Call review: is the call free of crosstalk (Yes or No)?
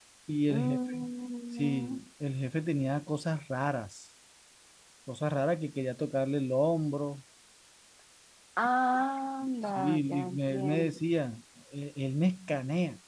No